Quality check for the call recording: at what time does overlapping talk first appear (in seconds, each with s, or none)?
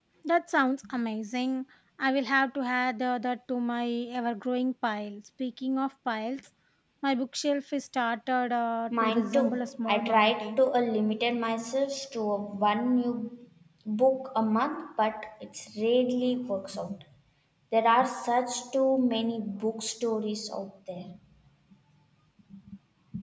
8.9 s